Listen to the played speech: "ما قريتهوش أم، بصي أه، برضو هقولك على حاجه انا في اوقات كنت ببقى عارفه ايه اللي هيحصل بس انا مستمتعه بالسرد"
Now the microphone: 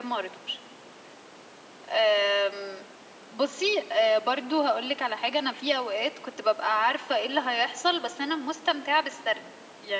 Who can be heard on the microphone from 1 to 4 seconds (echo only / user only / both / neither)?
echo only